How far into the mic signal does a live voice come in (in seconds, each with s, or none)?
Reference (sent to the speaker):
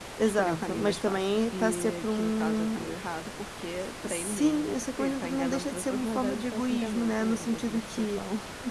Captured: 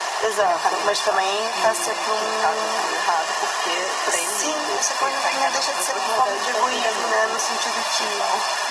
none